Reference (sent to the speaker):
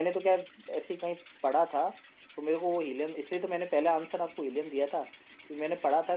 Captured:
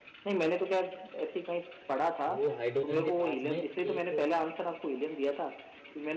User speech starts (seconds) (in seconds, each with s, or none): 2.3 s